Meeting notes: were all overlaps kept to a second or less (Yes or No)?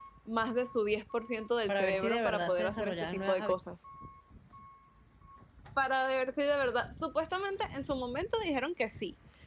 No